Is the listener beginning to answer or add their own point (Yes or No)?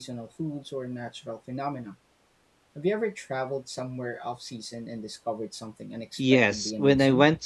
Yes